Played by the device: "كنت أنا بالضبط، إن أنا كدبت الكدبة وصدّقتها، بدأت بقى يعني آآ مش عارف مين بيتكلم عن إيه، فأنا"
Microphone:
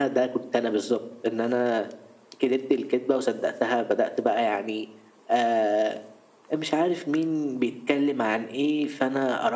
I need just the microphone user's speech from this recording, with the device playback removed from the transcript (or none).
none